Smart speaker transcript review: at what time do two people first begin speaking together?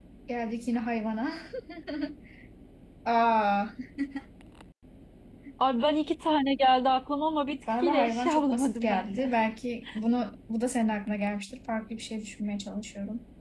7.7 s

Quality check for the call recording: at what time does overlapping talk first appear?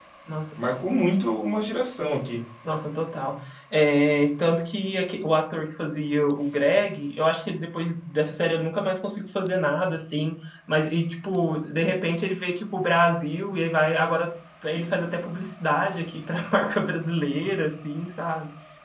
none

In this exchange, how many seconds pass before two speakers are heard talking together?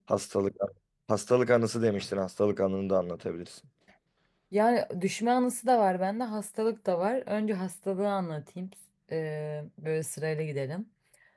none

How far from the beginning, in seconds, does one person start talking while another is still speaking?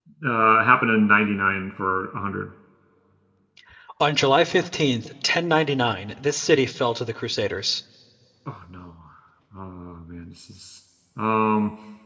none

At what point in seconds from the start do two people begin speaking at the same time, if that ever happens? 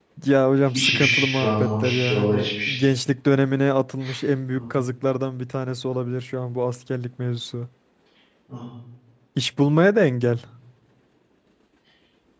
0.7 s

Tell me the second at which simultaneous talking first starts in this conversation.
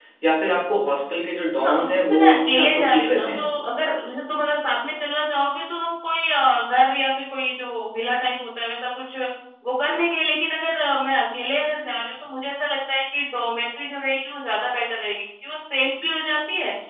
1.6 s

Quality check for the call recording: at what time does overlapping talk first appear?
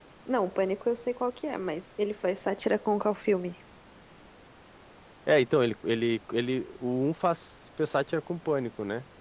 none

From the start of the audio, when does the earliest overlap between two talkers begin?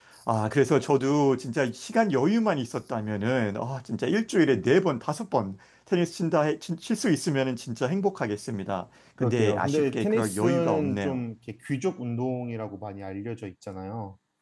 9.2 s

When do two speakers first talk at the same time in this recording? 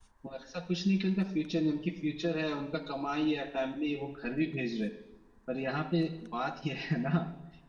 none

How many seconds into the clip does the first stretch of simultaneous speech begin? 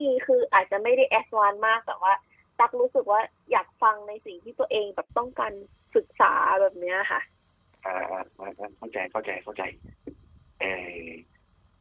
none

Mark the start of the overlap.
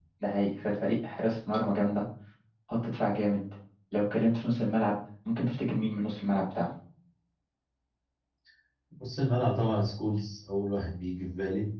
none

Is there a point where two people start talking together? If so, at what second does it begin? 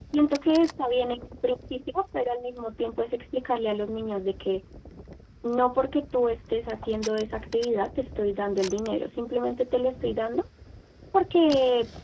none

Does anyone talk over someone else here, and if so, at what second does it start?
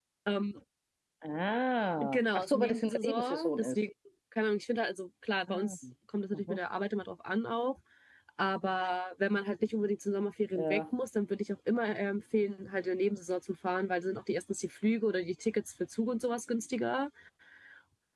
2.0 s

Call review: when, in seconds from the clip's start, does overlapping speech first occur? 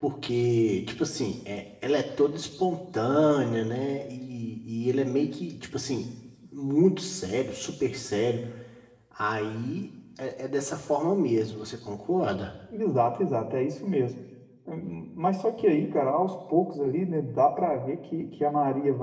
none

